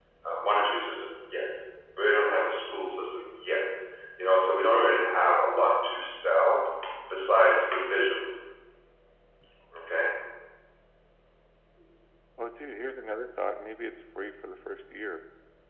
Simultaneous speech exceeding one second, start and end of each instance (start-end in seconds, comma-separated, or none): none